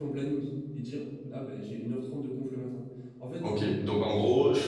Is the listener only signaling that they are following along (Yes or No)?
No